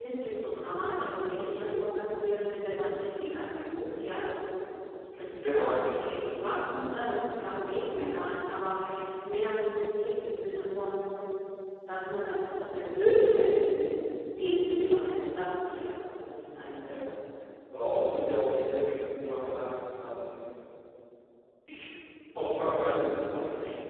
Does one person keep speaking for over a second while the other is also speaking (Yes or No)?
Yes